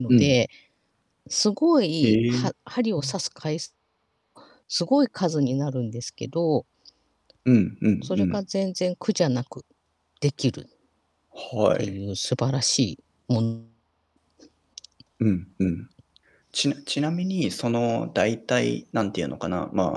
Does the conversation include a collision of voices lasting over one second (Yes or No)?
No